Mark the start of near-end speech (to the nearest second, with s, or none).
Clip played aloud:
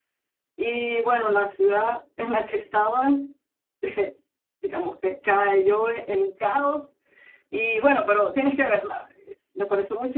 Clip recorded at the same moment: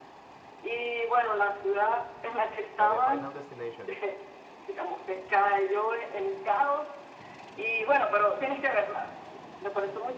3 s